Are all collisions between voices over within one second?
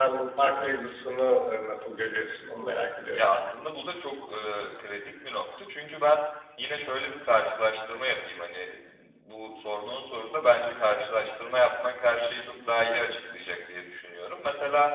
Yes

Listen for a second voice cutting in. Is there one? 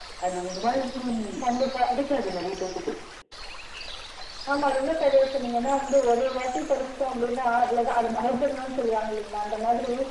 No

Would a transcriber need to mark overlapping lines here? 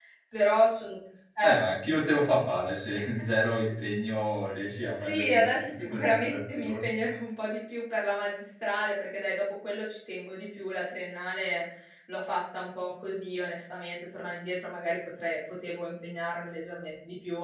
Yes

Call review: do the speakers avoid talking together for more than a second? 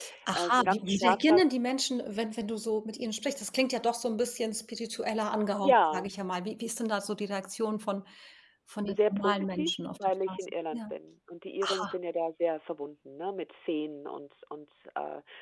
No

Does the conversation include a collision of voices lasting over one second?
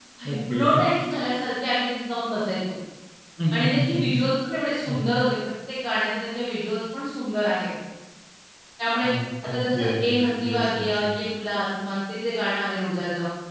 Yes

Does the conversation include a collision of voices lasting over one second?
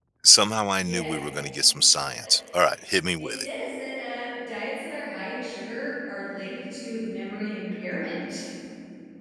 No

